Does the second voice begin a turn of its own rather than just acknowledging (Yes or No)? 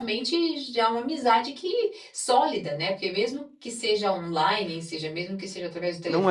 Yes